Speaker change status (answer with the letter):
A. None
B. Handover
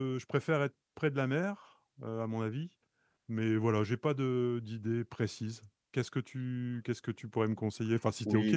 B